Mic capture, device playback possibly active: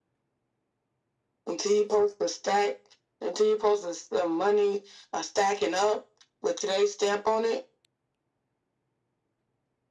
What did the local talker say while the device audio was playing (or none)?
none